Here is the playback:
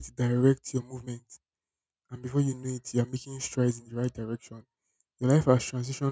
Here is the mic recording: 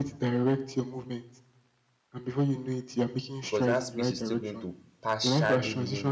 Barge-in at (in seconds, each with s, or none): 3.4 s